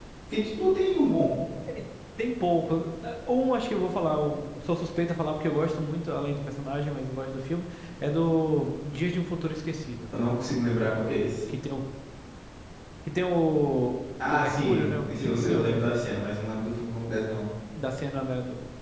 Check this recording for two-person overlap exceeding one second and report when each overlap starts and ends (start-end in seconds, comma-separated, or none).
14.3-15.8